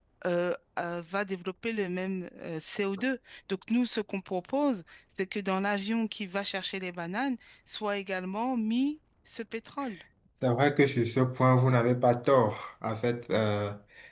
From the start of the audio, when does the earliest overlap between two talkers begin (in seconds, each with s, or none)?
none